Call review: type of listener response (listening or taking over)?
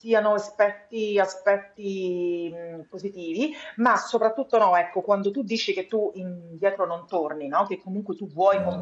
listening